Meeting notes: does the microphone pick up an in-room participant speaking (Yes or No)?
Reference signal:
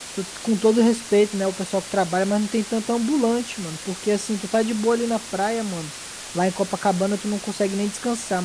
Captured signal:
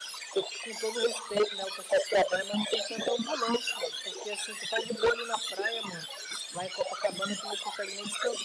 No